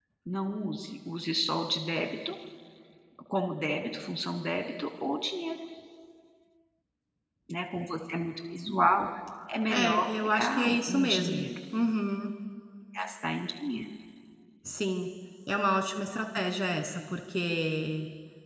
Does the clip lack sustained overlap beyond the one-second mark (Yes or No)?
No